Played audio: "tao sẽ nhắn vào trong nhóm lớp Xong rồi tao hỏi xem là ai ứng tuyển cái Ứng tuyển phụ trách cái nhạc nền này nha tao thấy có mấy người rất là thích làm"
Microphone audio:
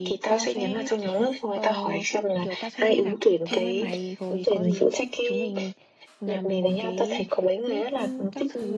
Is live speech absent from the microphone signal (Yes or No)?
No